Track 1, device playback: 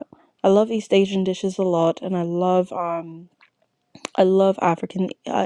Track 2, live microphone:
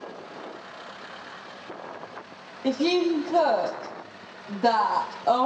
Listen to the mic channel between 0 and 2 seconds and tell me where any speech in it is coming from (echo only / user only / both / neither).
neither